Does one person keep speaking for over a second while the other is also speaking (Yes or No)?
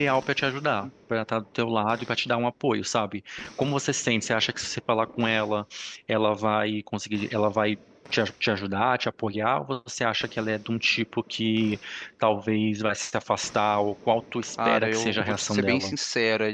Yes